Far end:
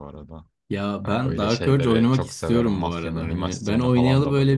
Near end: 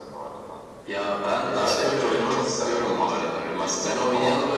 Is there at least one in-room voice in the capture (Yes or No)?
No